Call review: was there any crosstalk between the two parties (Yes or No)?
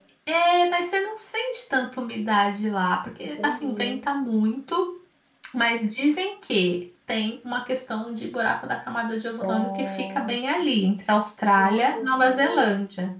Yes